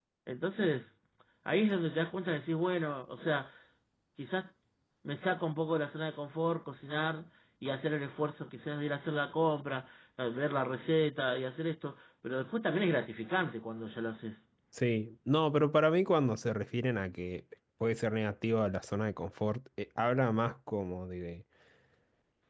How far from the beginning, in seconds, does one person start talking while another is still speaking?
none

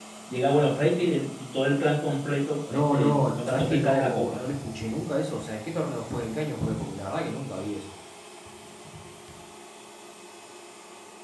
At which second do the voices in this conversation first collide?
2.7 s

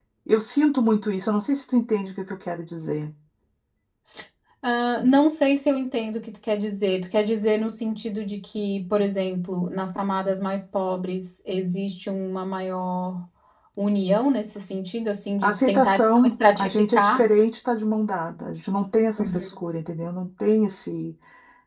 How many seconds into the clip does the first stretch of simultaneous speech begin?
15.4 s

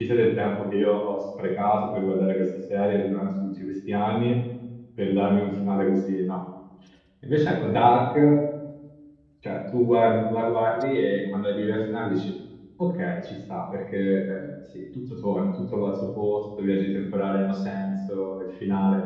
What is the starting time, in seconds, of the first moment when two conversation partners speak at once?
none

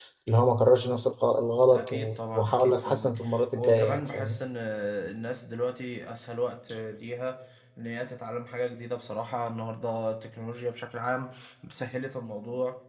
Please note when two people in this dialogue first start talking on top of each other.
1.7 s

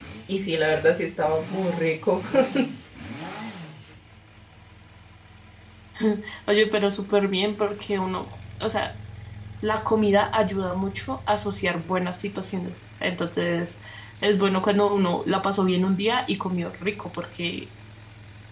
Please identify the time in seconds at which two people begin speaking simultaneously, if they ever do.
none

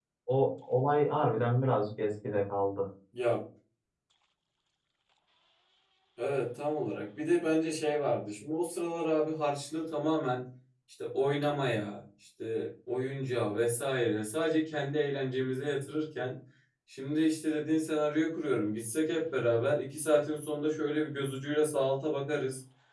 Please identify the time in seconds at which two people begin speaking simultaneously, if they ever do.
none

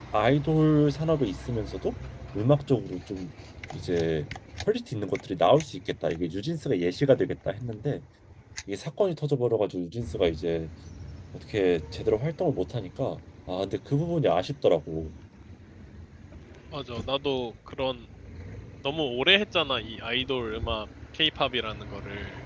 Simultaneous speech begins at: none

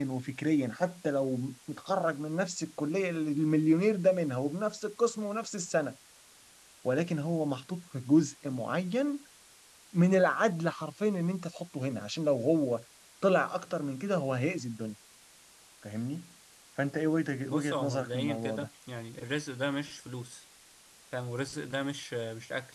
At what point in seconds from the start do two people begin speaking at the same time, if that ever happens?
17.5 s

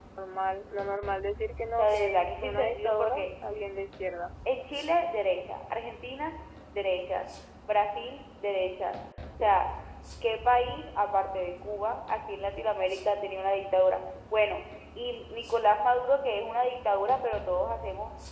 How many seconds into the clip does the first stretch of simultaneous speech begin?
1.8 s

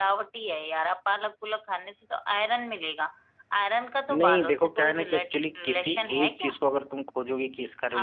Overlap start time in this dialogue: 4.1 s

